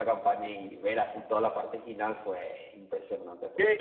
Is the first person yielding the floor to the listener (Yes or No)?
No